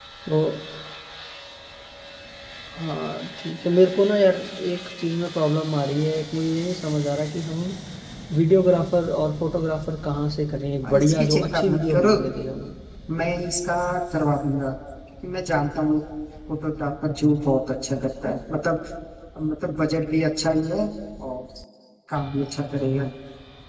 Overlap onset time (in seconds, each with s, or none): 10.8 s